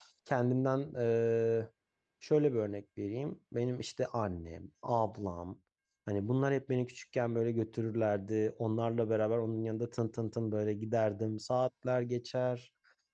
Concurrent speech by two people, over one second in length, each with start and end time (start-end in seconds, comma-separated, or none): none